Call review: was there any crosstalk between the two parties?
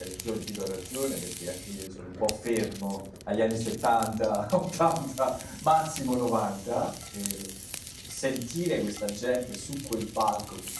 No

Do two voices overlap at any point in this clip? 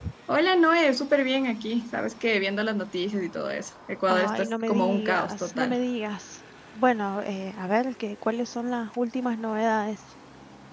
Yes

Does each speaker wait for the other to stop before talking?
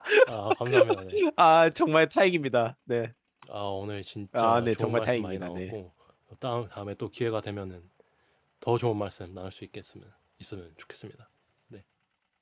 No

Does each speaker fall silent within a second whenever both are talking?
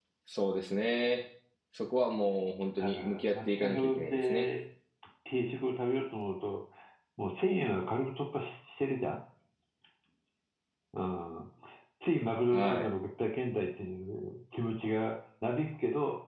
No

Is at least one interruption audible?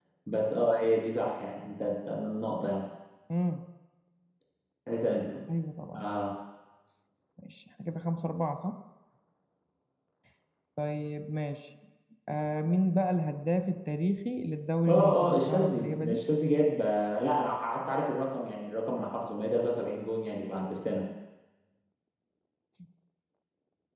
Yes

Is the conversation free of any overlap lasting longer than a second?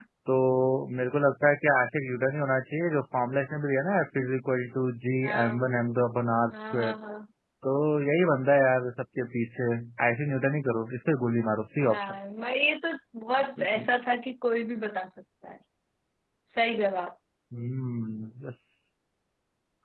Yes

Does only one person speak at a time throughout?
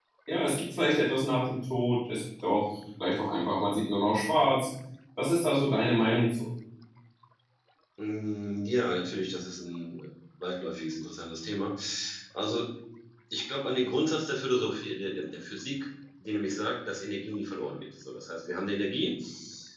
Yes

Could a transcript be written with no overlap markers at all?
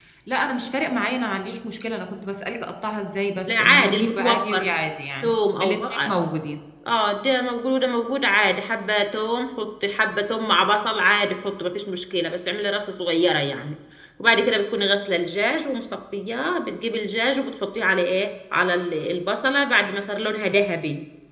No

